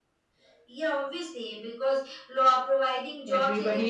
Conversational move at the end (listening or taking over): taking over